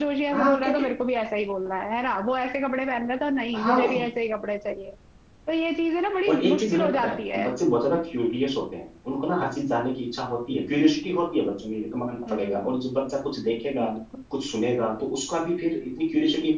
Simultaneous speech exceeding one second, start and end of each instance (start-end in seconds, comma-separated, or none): 6.3-7.5